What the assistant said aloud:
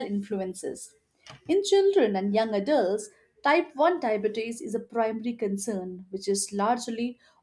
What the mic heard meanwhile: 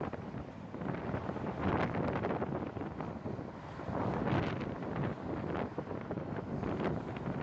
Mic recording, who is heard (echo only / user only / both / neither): neither